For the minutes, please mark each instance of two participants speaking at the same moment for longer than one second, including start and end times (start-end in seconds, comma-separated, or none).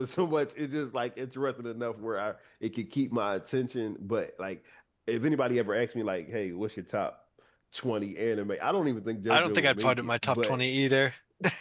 9.3-10.6